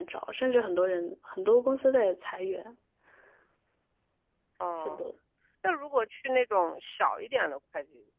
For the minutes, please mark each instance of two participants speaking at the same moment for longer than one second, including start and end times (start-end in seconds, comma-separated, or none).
none